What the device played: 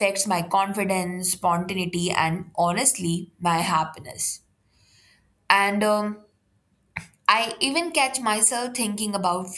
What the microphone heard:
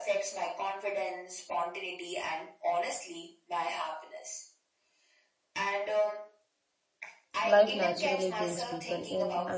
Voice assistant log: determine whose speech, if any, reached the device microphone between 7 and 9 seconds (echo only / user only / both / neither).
both